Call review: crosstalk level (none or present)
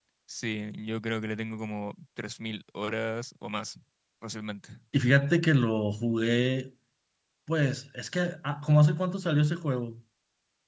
none